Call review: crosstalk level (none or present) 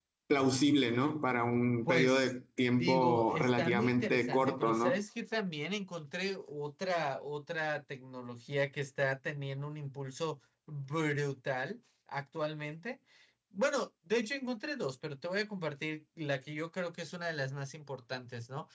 present